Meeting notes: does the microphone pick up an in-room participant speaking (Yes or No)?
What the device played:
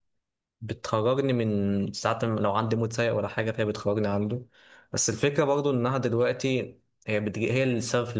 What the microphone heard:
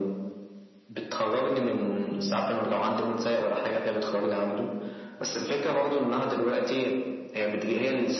No